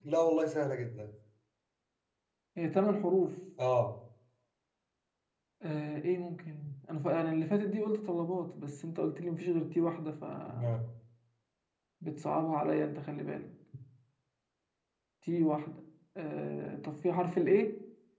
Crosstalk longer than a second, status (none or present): none